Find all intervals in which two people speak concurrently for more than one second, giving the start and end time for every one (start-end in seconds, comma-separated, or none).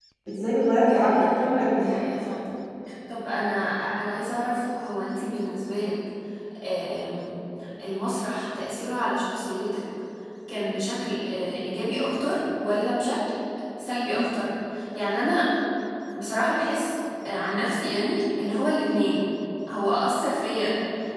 0.8-2.0